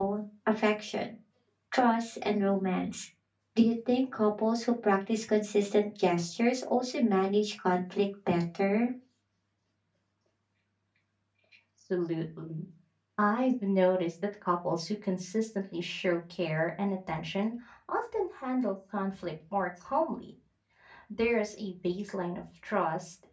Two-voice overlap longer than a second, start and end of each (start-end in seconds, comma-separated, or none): none